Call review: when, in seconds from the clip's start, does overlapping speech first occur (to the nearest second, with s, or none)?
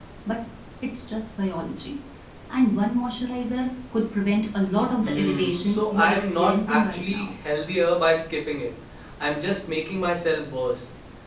5 s